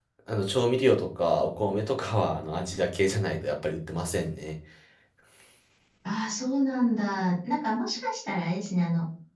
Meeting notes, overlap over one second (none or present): none